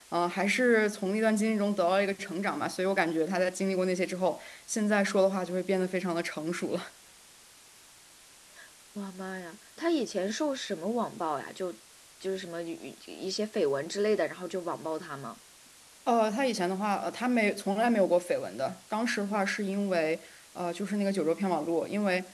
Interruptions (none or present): none